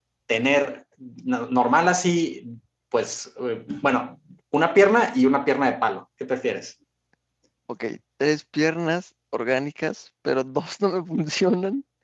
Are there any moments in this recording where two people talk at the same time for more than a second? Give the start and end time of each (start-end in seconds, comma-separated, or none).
none